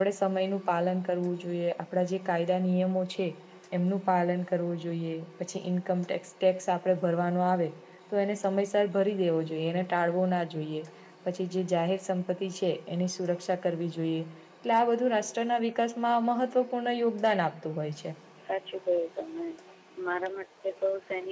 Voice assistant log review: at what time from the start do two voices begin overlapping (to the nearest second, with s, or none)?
none